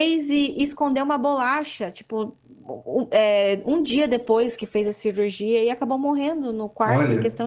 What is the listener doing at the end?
listening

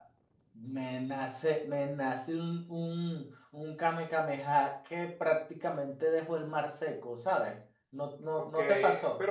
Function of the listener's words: taking over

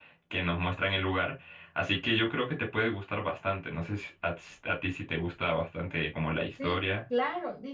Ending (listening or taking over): taking over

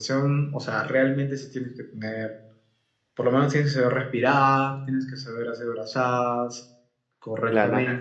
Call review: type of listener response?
taking over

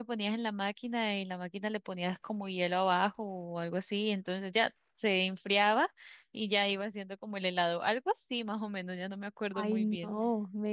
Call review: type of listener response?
taking over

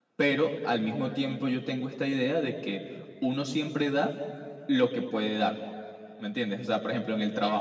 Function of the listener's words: listening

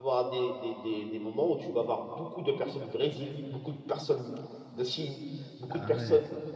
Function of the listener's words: listening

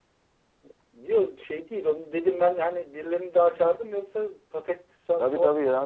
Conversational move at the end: taking over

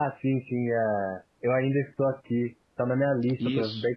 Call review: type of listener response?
listening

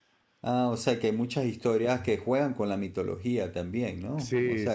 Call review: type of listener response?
taking over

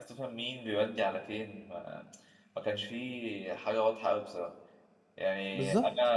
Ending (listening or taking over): listening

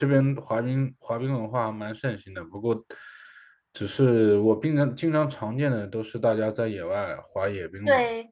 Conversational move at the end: taking over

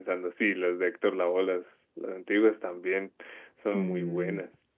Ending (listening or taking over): taking over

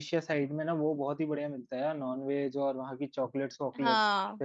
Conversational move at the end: listening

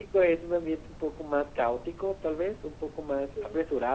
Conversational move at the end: listening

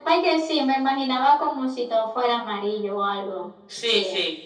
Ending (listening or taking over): taking over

